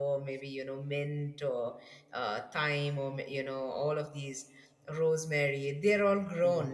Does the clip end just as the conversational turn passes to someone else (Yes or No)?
Yes